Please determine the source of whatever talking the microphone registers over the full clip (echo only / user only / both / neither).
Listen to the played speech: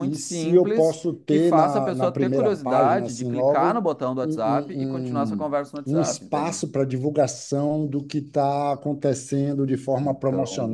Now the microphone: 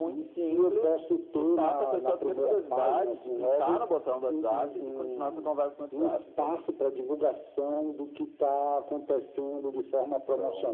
echo only